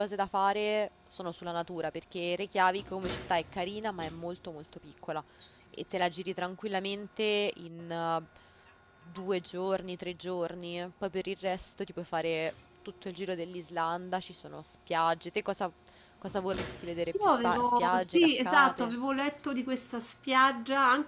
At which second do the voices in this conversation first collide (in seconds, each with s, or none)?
17.1 s